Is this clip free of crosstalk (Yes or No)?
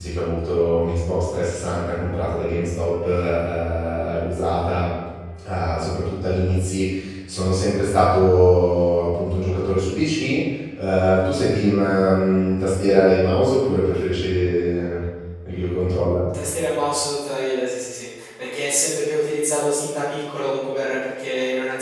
Yes